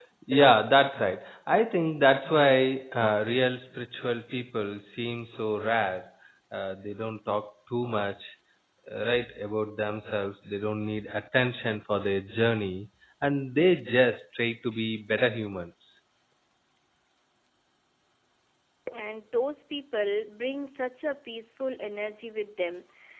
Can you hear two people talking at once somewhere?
No

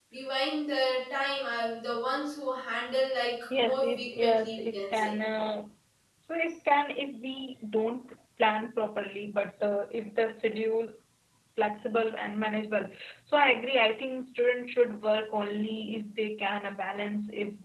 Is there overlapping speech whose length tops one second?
Yes, from 3.5 s

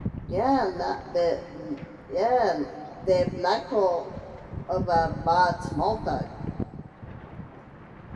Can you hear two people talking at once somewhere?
No

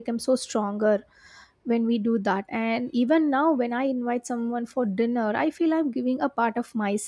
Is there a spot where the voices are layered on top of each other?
No

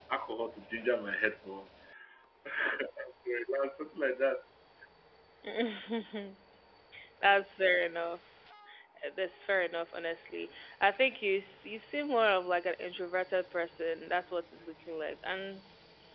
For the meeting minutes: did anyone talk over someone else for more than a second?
No

